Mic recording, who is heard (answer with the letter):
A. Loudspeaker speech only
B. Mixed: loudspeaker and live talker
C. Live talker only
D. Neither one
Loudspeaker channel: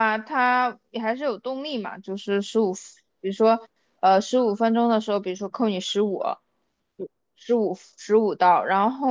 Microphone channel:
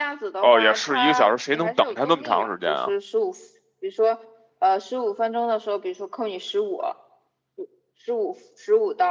B